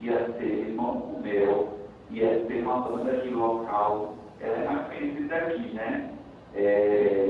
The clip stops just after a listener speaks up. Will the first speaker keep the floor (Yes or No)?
Yes